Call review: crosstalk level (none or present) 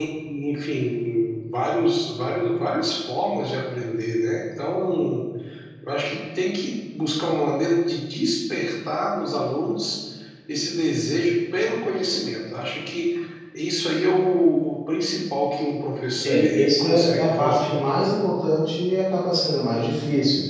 present